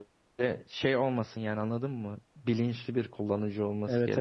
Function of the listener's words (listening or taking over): taking over